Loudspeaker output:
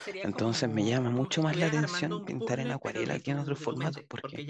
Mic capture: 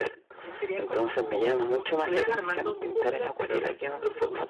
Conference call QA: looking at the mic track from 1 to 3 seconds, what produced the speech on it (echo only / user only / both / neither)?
echo only